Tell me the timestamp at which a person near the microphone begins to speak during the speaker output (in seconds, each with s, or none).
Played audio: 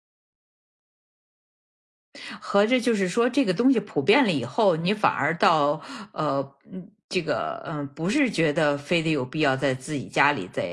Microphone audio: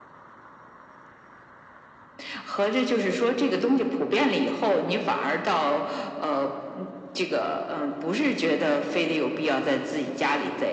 none